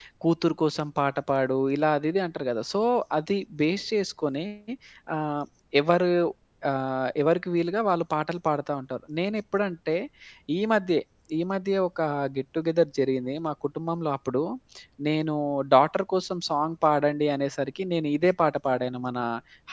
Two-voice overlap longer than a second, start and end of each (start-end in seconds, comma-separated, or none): none